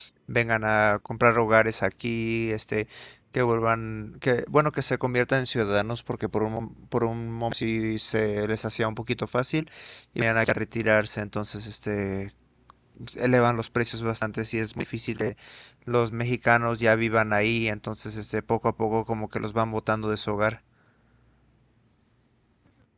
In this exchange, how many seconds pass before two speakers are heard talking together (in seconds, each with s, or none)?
none